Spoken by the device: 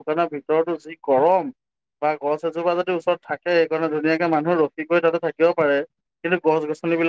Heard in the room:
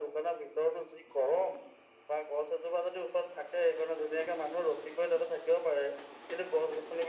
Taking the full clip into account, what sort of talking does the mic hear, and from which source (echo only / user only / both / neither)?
echo only